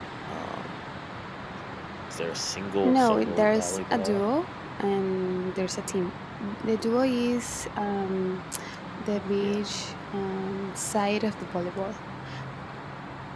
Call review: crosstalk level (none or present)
present